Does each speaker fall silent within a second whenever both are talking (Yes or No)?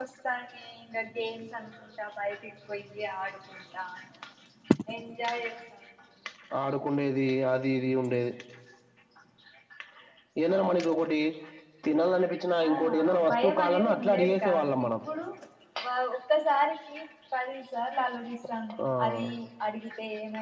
No